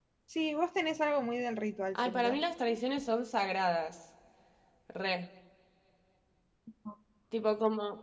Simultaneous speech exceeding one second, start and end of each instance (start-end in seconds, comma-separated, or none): none